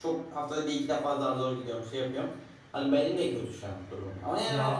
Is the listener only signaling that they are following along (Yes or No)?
Yes